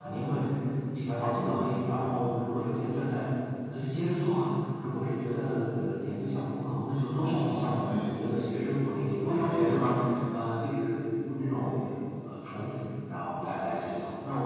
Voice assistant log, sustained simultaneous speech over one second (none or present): present